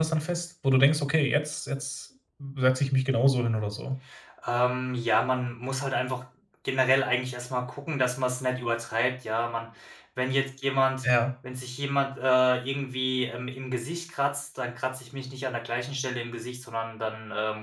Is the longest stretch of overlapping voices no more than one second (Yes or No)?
Yes